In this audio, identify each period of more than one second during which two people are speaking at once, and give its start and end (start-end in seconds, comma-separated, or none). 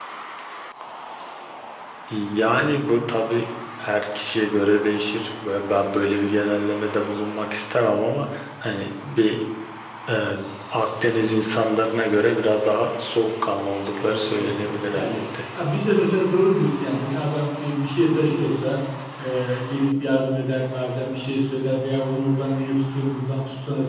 14.0-15.2